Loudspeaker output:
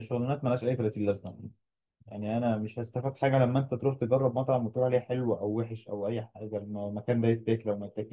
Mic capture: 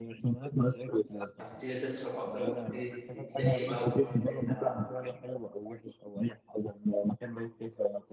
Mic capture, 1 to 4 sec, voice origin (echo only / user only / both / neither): both